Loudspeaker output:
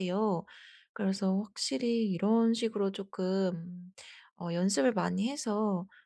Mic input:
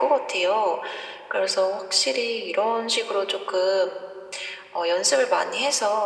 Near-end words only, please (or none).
none